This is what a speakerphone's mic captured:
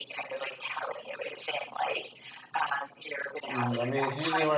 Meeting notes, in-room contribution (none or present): present